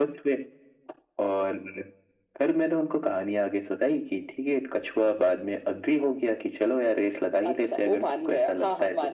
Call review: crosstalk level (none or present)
present